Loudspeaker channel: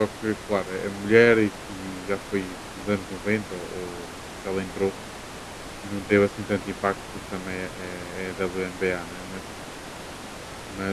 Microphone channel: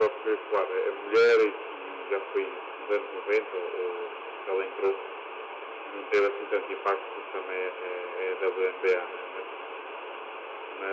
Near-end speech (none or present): none